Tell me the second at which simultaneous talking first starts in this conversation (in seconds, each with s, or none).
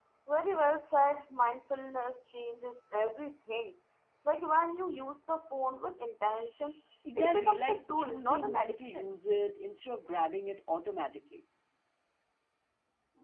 7.0 s